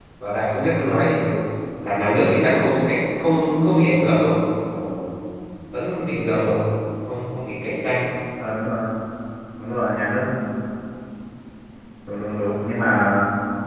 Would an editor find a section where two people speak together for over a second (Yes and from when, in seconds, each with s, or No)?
No